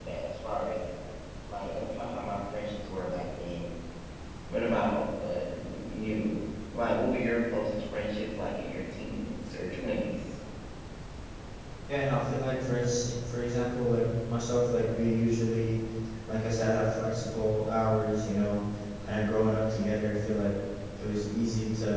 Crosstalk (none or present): none